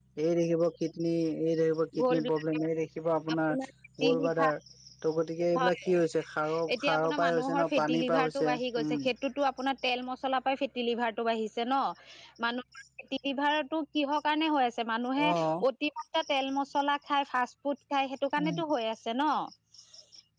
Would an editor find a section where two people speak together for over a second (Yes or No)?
Yes